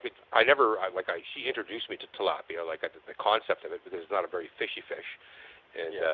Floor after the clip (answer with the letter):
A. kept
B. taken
A